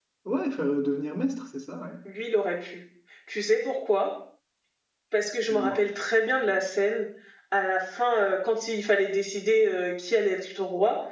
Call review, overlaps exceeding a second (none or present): none